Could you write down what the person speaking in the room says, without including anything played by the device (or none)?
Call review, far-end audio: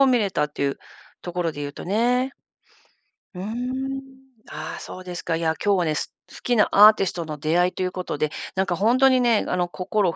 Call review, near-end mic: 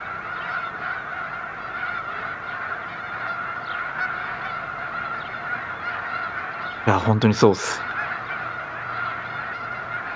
いや、ほんとにそうっす。